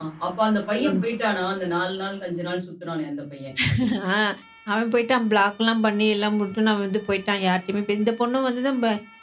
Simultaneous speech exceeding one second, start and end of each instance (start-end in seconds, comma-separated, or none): none